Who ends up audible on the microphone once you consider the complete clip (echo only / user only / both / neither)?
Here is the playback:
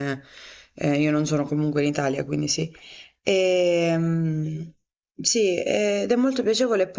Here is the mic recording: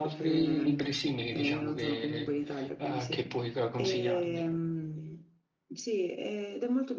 both